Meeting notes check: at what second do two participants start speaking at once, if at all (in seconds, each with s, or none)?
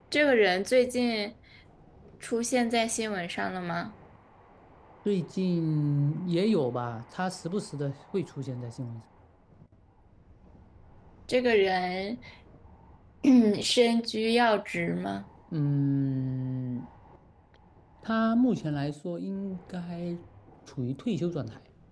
none